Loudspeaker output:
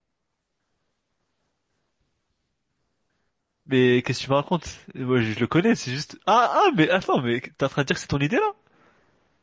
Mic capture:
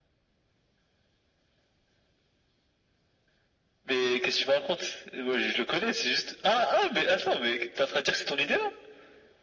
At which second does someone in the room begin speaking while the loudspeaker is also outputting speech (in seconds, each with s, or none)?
none